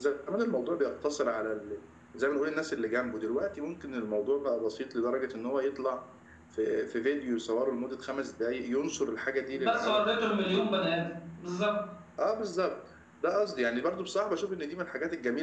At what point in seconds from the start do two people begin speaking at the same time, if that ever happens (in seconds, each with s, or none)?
9.5 s